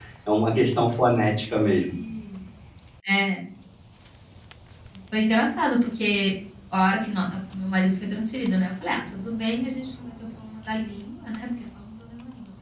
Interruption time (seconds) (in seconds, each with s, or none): none